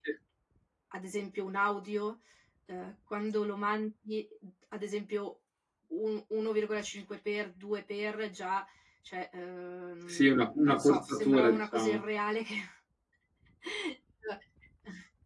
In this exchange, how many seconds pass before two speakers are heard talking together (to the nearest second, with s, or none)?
10 s